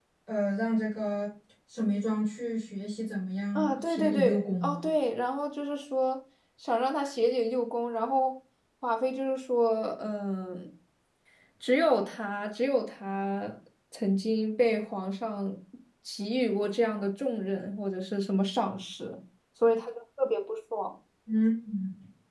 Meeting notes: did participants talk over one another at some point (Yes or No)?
Yes